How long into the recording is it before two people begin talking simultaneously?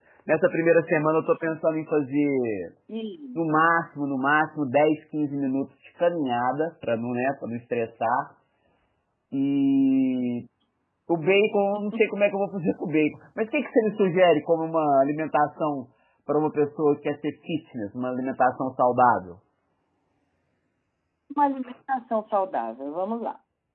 none

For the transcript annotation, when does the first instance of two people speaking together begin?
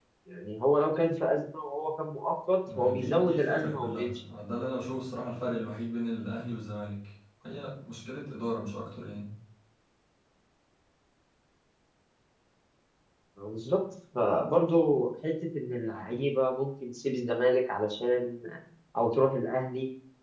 2.6 s

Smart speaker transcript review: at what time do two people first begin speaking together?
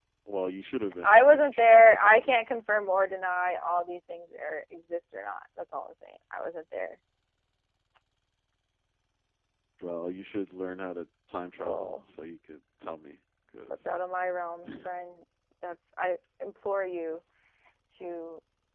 1.0 s

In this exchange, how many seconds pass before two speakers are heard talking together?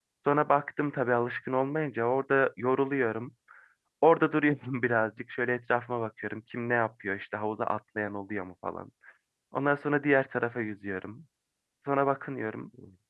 none

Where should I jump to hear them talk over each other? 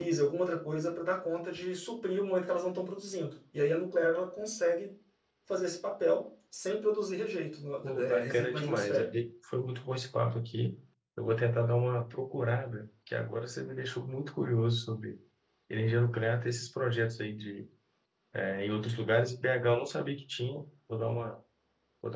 7.8 s

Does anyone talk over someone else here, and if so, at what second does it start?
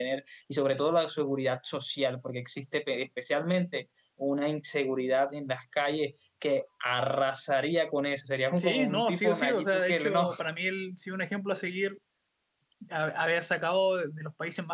8.5 s

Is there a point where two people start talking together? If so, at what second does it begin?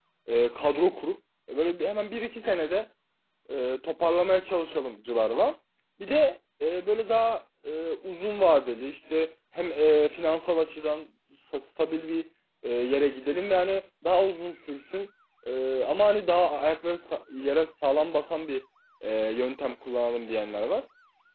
none

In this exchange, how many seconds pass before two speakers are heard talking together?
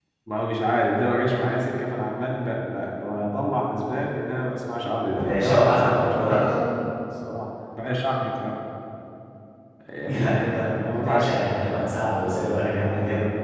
5.1 s

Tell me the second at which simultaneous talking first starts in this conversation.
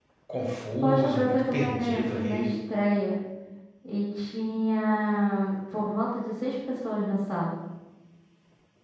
0.8 s

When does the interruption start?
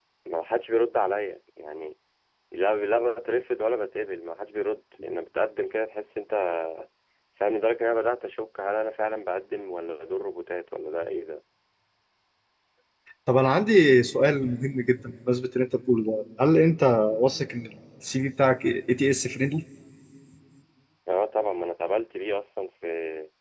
none

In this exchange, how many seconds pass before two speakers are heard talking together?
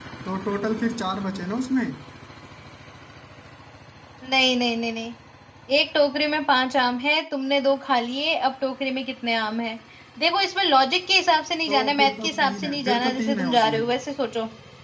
11.7 s

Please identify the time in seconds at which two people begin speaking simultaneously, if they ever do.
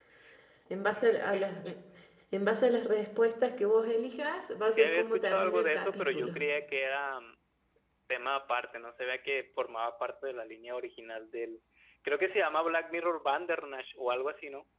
4.7 s

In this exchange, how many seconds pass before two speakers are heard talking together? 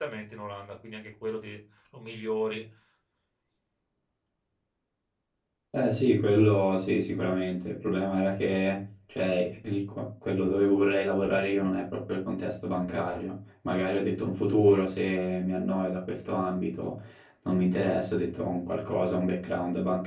none

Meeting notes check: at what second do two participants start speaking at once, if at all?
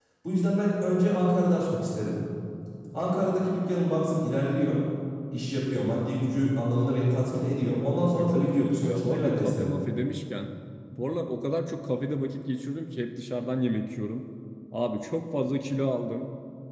8.0 s

